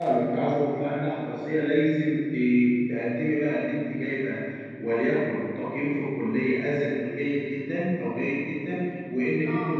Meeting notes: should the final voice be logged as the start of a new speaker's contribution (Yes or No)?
No